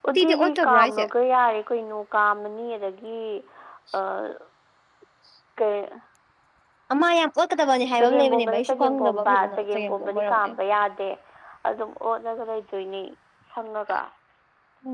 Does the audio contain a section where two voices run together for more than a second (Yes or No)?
Yes